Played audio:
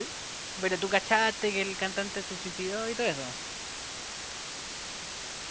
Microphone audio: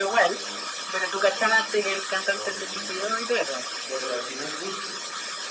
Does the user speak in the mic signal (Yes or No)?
Yes